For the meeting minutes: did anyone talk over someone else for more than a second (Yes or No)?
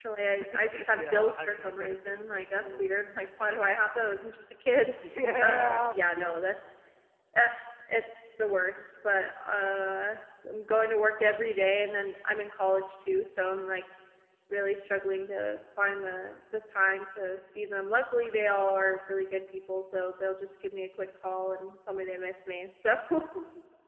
Yes